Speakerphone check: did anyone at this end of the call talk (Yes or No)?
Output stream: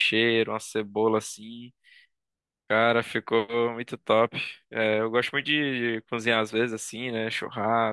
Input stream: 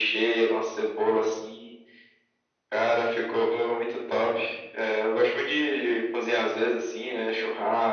No